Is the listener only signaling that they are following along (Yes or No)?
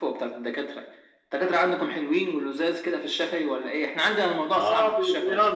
No